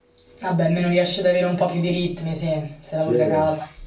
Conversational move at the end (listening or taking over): taking over